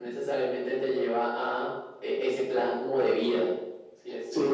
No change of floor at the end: No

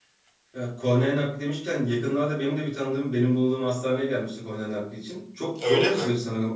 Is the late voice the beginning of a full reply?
No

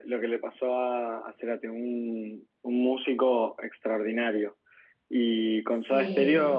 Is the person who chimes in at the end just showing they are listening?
Yes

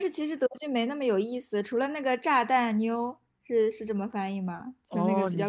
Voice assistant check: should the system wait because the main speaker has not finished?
No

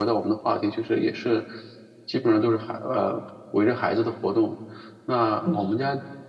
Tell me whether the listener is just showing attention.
Yes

